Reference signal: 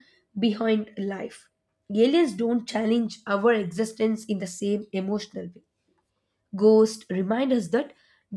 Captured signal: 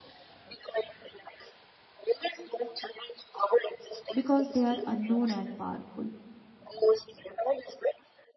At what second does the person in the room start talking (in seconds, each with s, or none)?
4.1 s